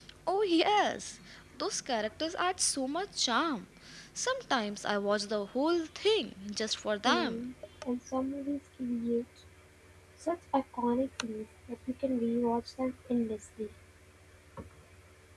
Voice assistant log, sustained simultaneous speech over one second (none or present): none